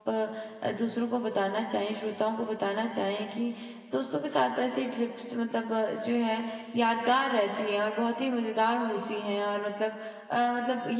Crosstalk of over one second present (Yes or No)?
No